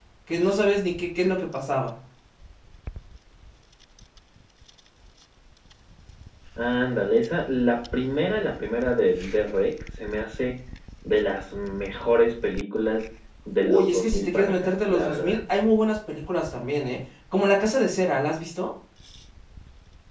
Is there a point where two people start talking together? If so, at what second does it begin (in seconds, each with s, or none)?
13.6 s